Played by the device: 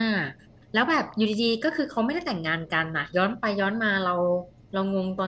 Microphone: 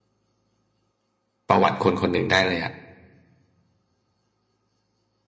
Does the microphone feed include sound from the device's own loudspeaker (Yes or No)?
No